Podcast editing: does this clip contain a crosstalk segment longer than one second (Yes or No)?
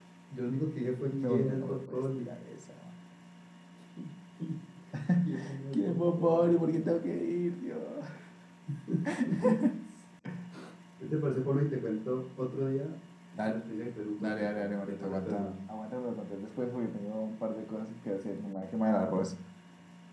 Yes